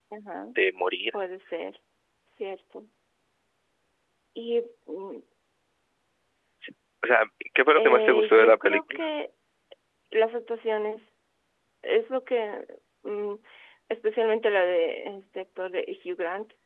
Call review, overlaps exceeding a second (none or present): present